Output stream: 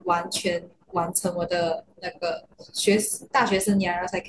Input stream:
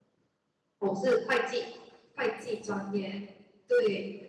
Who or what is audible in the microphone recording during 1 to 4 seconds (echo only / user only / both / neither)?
user only